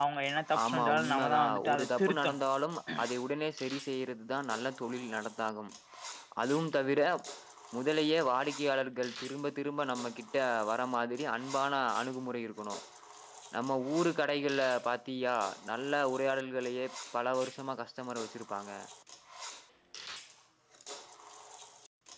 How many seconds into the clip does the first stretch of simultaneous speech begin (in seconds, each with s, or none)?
0.6 s